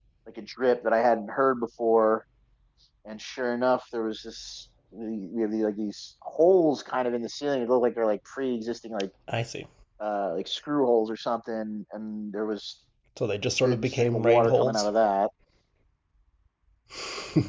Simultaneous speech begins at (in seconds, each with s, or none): 13.6 s